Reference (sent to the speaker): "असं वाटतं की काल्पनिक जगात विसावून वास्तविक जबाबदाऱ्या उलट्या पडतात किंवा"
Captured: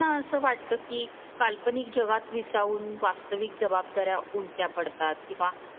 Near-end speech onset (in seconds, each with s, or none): none